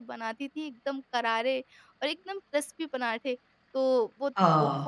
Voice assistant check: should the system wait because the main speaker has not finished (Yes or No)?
Yes